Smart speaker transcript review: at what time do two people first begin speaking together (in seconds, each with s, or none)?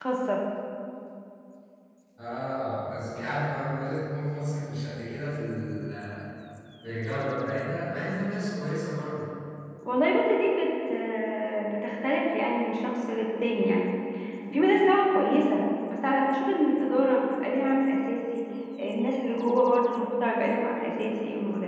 none